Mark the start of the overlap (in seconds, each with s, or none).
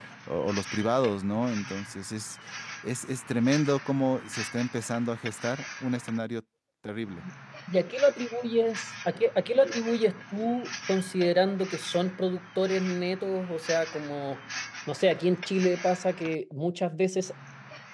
none